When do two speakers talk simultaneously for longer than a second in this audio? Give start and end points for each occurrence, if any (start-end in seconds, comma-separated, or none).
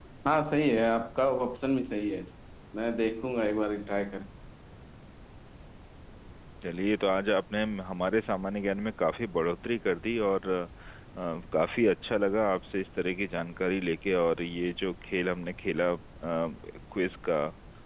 none